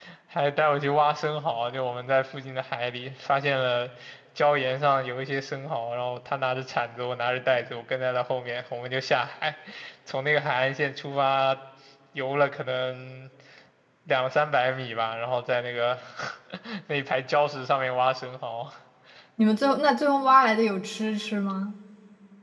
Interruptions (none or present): none